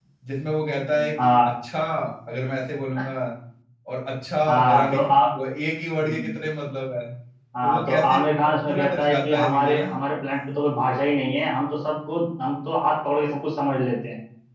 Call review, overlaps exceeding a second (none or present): present